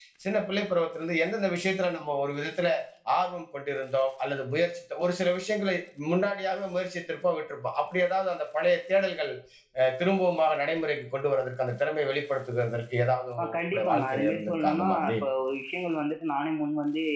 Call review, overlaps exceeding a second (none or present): present